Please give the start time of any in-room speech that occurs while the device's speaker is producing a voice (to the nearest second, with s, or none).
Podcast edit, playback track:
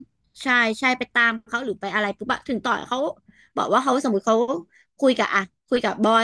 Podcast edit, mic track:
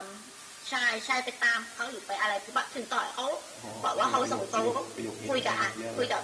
3 s